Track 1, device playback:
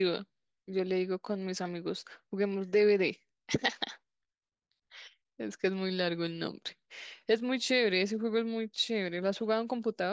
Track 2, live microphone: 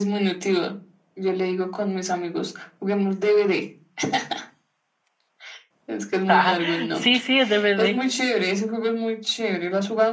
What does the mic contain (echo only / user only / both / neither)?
both